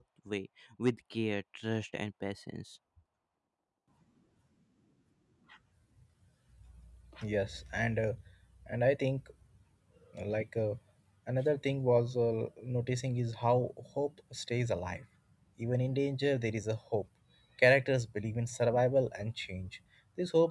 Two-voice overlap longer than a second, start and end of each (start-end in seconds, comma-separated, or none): none